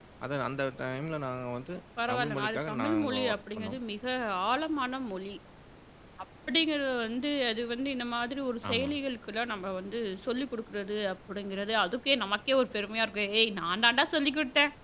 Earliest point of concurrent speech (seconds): 2.1 s

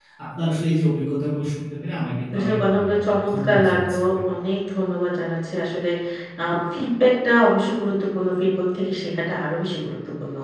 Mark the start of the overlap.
2.3 s

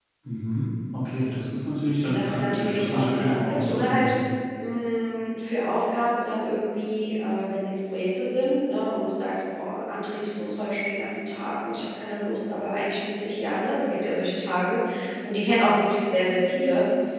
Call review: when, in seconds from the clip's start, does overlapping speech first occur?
2.0 s

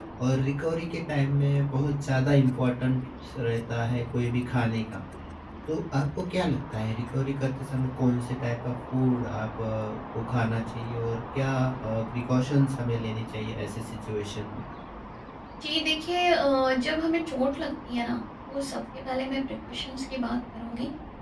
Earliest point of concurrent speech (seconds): none

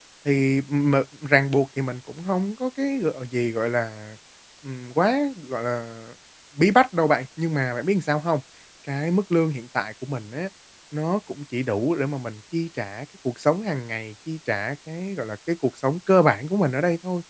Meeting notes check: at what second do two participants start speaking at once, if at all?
none

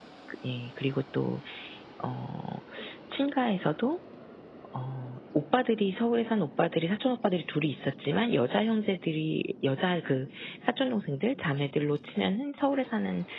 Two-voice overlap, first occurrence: none

